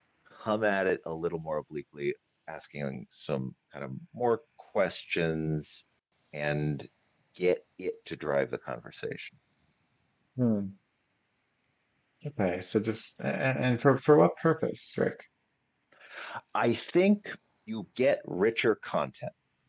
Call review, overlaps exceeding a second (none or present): none